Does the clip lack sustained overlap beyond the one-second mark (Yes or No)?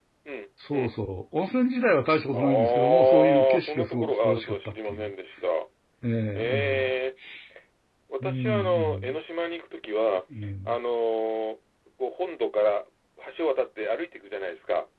No